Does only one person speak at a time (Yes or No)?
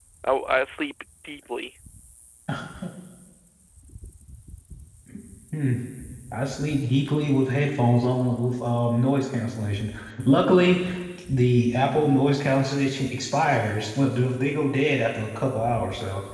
Yes